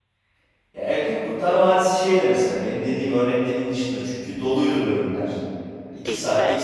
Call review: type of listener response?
listening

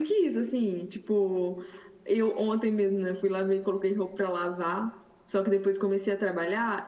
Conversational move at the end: listening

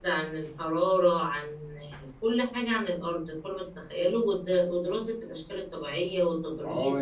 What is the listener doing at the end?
taking over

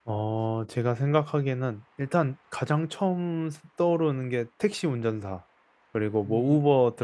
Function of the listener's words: listening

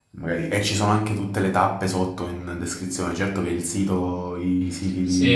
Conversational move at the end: taking over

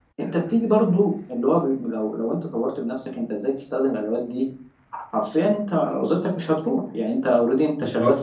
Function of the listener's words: listening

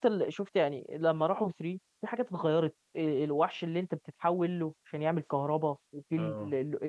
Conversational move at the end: listening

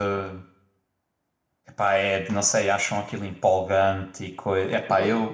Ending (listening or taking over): taking over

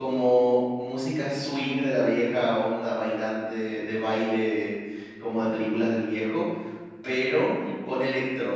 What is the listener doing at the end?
listening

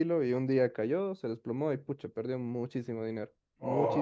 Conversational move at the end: taking over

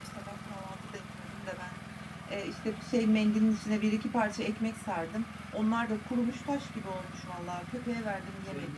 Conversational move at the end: taking over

